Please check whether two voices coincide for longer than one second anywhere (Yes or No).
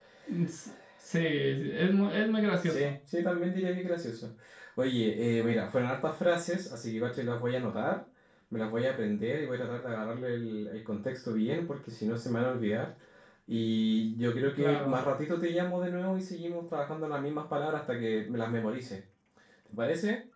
No